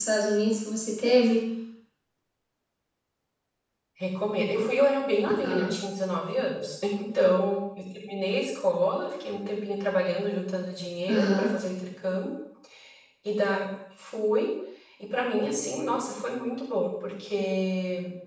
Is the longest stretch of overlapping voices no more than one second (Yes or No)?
Yes